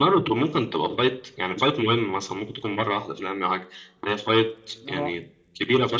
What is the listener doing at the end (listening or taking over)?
listening